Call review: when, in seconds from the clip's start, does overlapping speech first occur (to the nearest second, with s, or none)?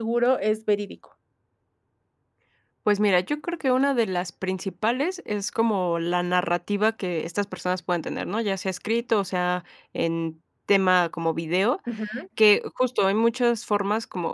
none